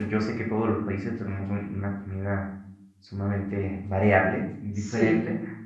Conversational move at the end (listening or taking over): listening